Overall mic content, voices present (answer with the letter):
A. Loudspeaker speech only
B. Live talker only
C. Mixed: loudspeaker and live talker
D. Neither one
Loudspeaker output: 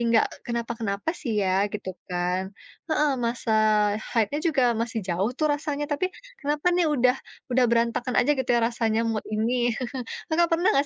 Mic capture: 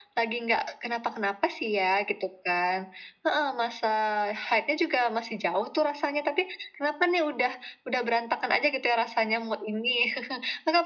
A